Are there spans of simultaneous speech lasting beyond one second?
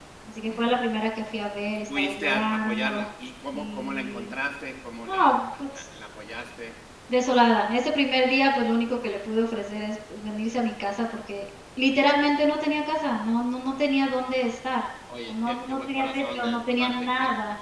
Yes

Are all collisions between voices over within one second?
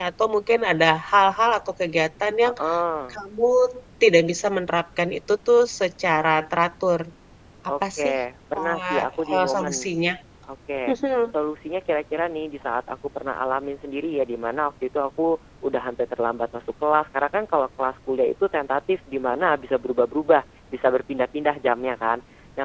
No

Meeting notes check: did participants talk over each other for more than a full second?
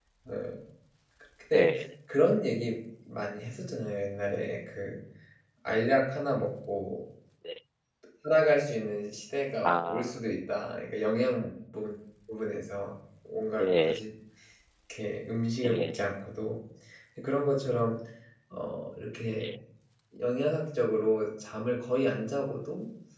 No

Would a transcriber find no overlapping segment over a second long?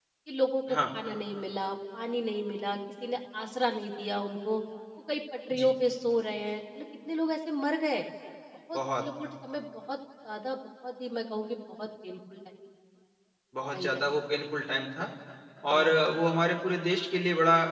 Yes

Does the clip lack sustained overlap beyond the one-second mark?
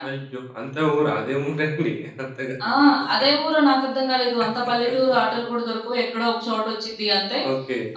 Yes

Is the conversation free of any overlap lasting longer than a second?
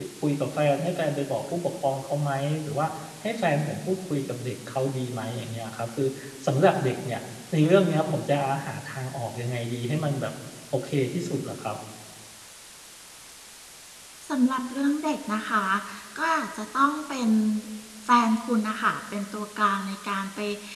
Yes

